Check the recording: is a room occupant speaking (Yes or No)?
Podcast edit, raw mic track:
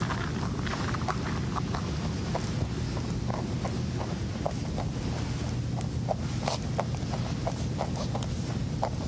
No